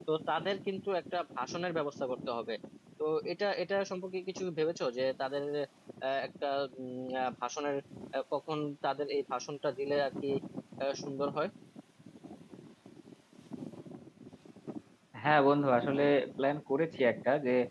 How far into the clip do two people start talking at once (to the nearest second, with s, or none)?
none